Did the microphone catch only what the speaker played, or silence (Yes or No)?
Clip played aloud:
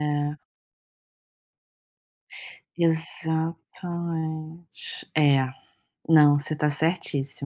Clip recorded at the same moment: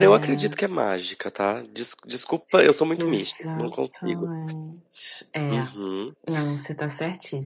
No